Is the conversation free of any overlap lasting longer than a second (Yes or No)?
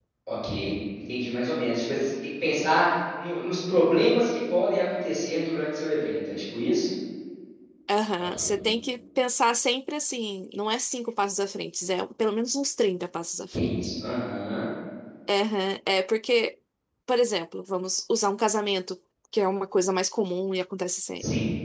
Yes